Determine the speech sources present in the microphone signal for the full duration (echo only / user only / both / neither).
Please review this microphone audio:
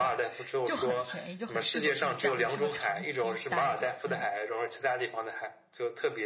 both